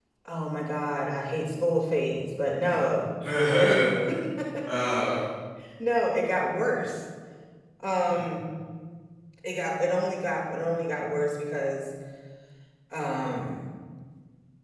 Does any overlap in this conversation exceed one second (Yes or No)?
No